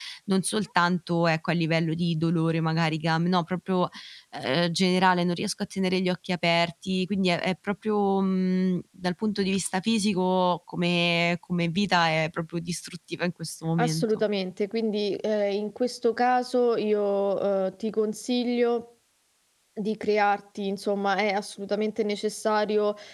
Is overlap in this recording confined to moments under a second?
Yes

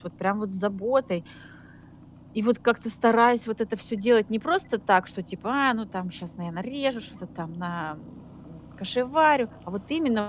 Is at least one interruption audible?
No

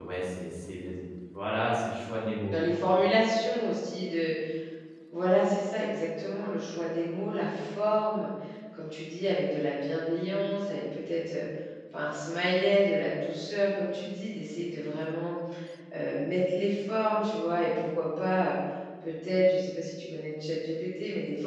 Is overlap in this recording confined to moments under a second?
Yes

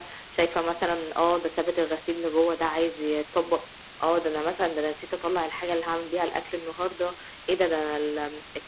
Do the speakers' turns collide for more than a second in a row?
No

